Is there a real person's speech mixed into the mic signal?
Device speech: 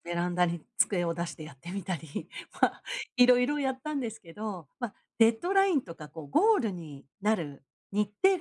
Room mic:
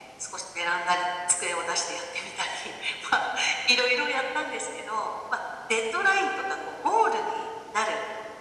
No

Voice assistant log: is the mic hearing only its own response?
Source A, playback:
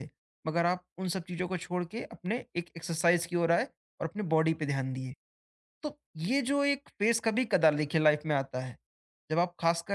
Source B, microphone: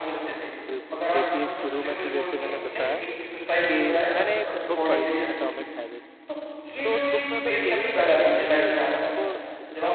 No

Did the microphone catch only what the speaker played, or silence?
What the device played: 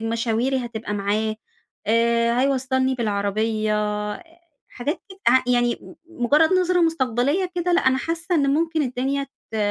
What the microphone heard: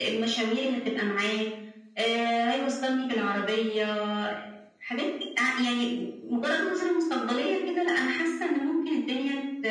Yes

